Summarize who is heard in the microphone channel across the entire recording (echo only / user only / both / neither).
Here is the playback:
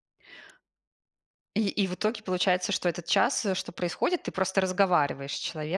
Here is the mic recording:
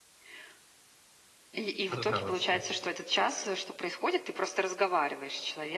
both